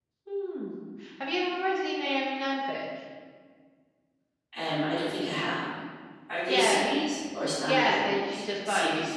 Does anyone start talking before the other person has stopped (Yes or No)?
Yes